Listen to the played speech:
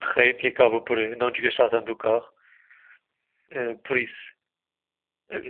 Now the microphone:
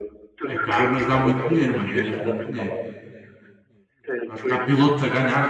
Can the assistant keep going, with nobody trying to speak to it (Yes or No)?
No